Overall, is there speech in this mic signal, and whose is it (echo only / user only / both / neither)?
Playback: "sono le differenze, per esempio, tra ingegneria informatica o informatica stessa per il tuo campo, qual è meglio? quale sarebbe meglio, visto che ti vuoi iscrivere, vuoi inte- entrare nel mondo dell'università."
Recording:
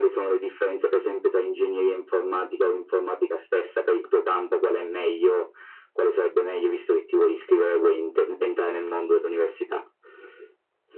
echo only